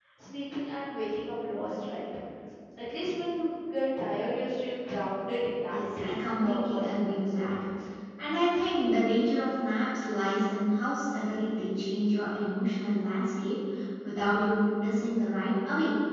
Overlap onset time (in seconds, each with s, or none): 5.7 s